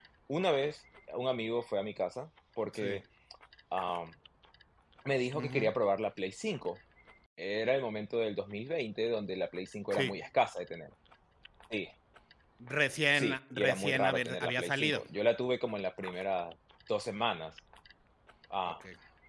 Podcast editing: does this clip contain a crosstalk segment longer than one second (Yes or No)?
Yes